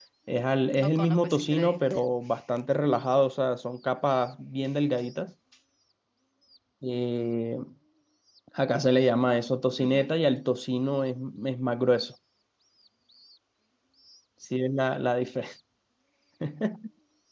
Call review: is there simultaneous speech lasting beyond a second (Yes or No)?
Yes